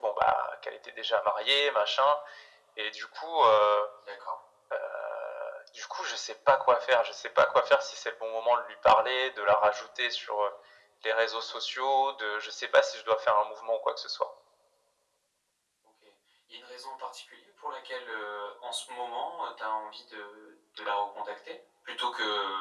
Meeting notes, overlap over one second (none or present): none